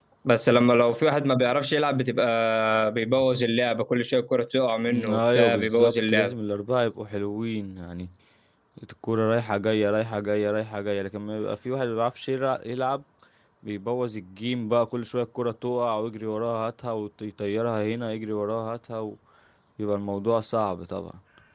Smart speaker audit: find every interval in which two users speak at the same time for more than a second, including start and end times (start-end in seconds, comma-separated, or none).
5.1-6.3